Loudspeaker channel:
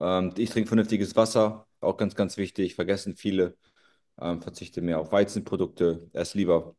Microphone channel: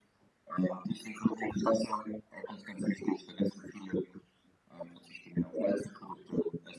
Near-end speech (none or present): none